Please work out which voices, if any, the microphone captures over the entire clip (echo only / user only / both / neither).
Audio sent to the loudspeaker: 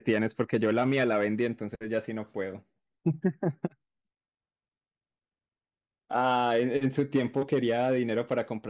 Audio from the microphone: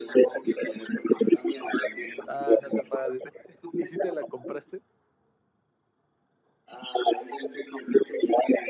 both